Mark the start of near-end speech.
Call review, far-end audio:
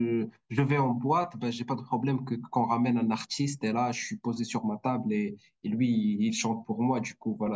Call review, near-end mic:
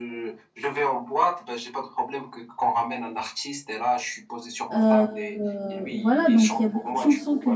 4.7 s

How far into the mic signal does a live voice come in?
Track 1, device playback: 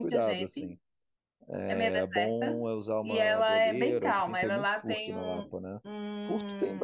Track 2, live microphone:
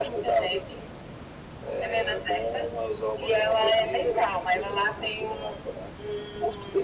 none

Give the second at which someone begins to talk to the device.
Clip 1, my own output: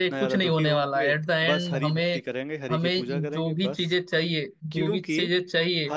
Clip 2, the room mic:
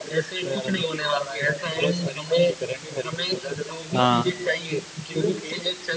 4.0 s

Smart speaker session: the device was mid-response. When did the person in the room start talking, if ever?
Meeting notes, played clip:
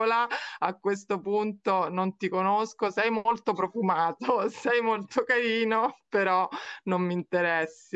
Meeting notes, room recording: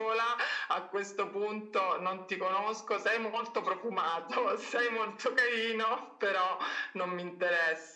none

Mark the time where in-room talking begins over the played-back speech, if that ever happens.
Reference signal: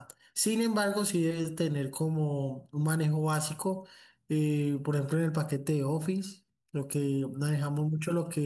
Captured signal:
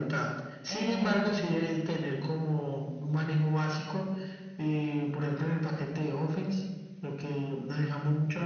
0.7 s

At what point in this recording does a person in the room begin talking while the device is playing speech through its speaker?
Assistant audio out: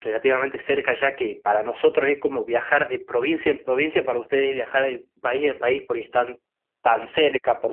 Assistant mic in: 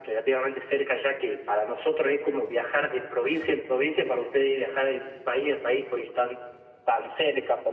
none

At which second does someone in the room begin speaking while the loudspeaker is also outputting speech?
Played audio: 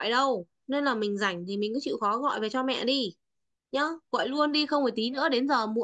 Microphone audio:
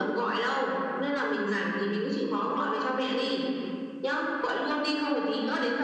none

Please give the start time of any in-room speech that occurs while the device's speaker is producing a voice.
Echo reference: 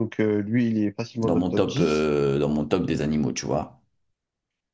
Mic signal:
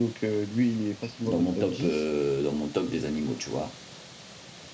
none

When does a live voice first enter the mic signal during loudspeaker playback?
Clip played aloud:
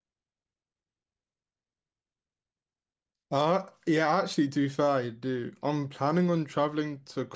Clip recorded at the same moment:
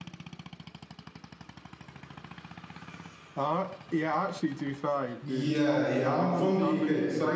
5.2 s

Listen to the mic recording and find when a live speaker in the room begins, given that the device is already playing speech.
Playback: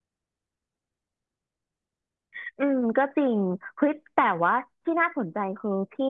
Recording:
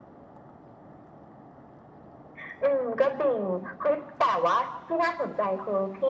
none

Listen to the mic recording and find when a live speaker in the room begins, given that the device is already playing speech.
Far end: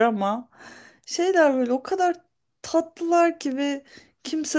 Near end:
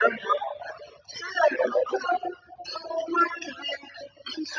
none

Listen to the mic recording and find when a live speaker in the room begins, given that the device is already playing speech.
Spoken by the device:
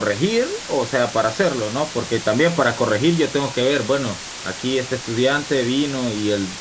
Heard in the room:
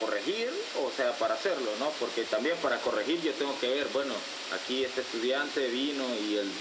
none

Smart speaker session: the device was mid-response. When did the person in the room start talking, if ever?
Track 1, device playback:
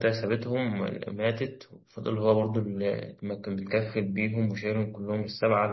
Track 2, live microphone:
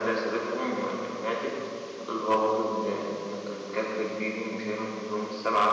none

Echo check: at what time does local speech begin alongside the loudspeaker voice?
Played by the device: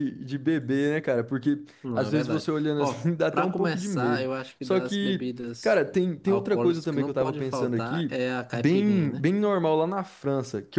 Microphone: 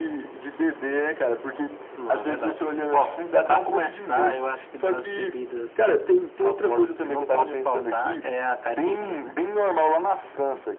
none

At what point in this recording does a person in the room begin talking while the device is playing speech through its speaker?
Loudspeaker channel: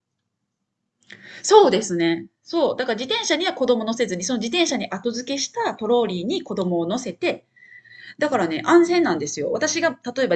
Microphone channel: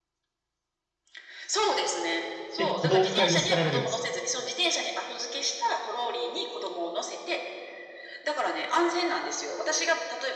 2.6 s

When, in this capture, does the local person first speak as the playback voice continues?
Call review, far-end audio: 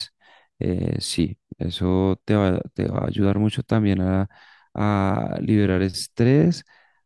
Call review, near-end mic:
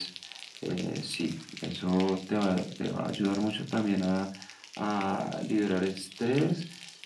none

